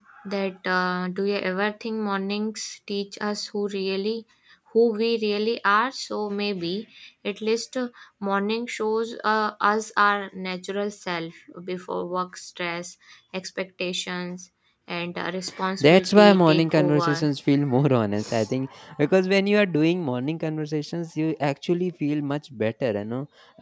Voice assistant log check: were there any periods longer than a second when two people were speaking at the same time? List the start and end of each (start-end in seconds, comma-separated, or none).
15.8-17.3